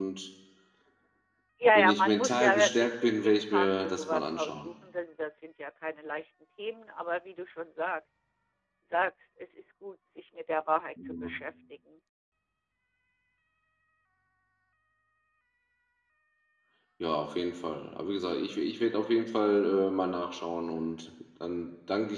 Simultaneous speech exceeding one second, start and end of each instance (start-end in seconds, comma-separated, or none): 1.8-4.7